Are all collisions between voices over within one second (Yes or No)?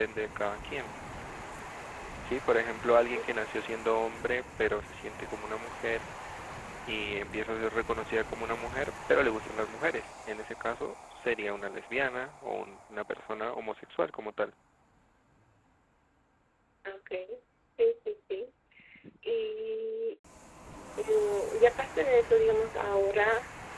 Yes